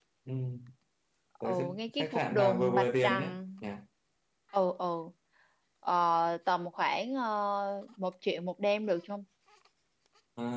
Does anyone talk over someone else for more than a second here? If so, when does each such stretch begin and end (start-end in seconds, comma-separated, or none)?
1.4-3.4